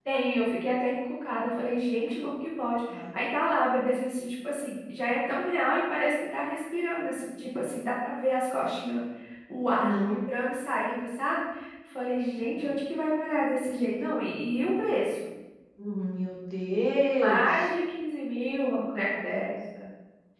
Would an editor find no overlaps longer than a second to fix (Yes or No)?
Yes